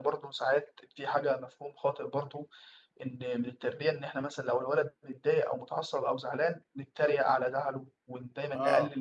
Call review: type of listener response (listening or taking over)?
listening